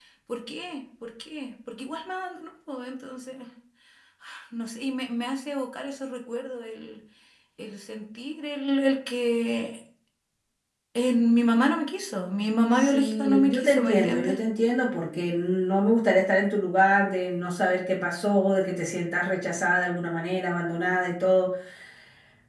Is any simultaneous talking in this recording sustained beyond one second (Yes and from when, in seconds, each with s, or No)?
Yes, from 12.7 s